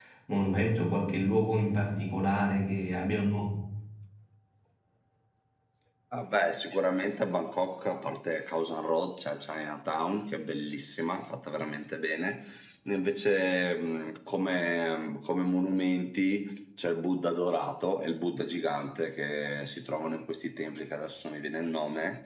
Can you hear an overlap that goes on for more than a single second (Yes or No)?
No